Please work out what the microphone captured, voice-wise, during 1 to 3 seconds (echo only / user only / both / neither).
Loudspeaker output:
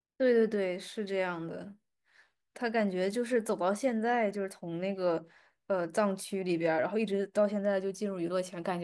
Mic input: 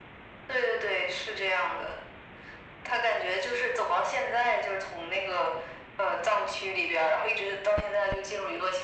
echo only